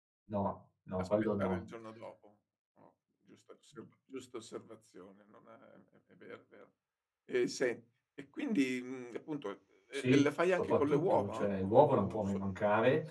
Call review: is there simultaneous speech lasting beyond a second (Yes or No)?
Yes